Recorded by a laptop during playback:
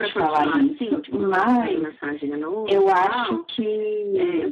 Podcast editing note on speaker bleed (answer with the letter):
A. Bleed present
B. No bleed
A